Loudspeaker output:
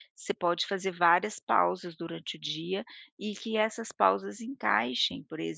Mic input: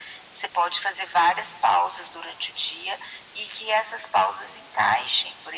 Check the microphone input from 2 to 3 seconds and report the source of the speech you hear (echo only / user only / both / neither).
echo only